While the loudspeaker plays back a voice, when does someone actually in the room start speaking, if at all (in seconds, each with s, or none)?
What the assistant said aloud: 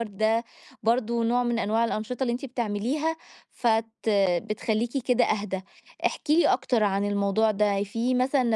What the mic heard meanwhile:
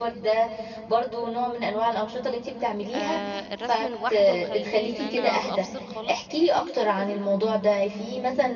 2.9 s